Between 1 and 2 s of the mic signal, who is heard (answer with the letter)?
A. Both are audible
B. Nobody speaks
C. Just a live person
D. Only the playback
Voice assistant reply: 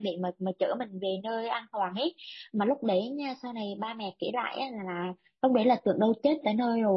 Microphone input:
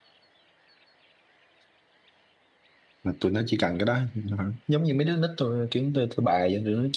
B